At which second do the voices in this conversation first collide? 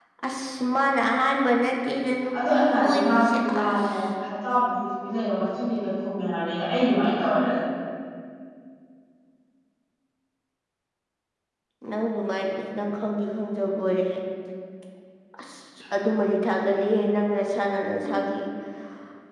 2.3 s

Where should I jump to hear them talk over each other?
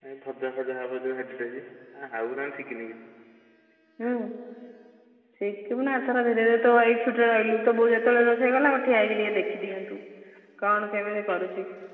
none

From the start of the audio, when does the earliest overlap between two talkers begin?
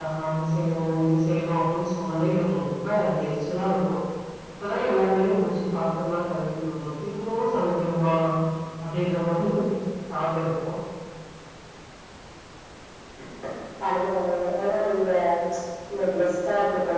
none

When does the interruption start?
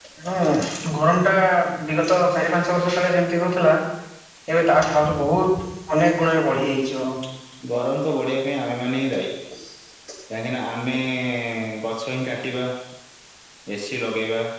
none

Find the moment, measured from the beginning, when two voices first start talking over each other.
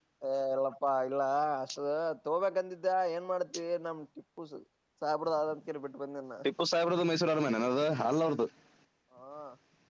none

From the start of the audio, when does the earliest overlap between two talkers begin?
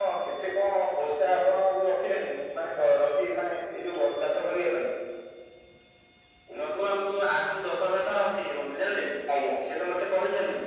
none

